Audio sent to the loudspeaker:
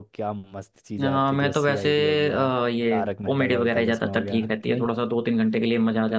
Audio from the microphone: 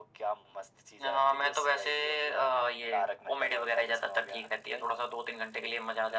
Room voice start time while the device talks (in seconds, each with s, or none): none